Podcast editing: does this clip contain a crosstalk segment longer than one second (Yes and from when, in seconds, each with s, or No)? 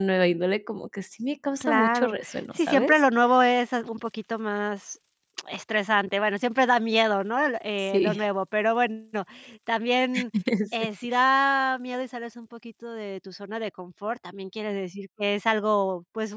Yes, from 1.6 s